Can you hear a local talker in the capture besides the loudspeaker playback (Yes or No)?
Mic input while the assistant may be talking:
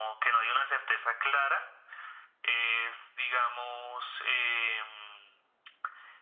No